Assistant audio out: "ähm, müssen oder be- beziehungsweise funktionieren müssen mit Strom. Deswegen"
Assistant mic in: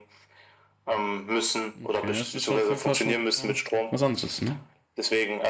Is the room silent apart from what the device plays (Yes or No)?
No